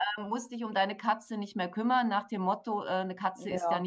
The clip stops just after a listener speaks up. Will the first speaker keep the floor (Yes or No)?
Yes